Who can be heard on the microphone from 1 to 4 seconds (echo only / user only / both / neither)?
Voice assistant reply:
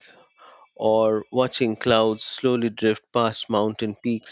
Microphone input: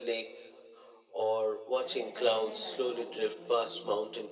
both